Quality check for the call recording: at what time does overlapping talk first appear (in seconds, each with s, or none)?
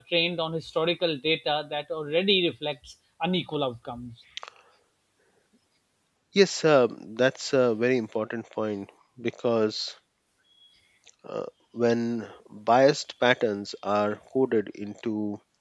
none